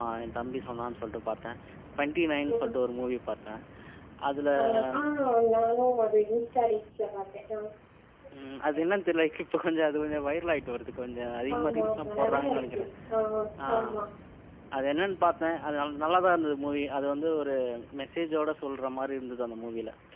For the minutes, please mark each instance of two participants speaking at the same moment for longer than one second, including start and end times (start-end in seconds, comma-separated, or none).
11.6-12.8